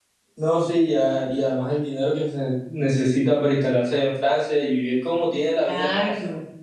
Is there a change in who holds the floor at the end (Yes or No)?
Yes